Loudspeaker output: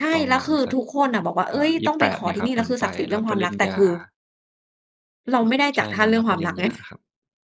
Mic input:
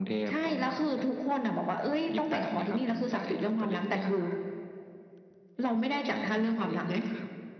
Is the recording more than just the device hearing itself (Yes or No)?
No